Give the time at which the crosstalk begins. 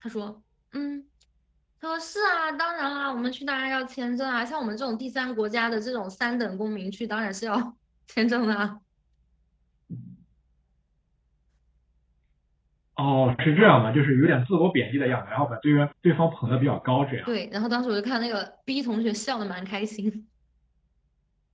none

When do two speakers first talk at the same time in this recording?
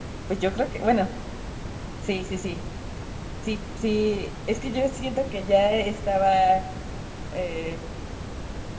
none

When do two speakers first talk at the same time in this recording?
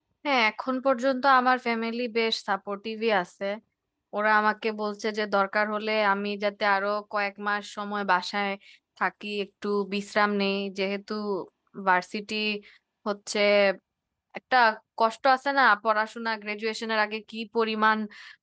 none

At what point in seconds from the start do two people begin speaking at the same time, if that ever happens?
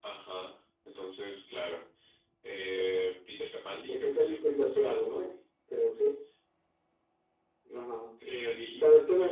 4 s

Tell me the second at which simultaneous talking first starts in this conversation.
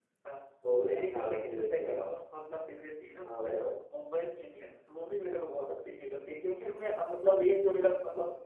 1 s

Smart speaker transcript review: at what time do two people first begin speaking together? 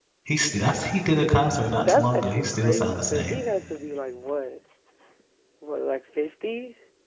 2 s

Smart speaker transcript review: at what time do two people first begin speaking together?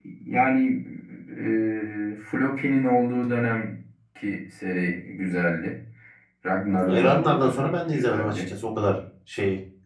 7 s

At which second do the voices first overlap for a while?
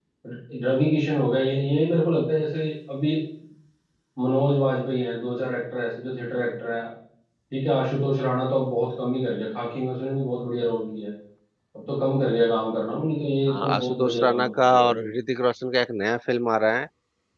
13 s

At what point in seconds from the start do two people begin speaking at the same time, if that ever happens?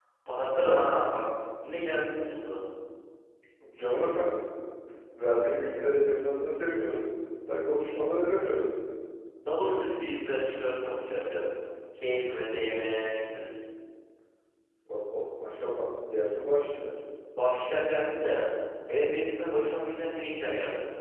none

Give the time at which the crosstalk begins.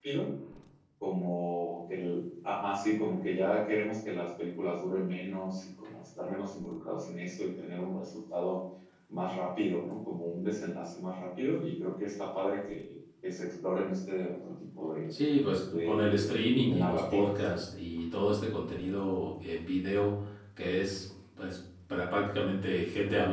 16 s

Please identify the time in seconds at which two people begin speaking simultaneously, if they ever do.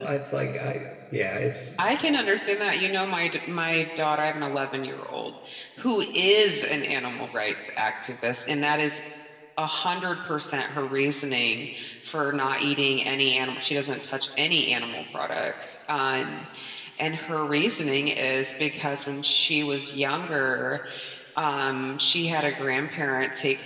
none

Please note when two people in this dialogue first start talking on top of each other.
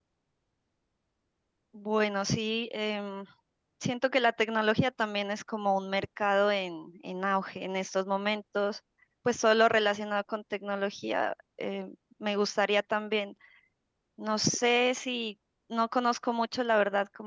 none

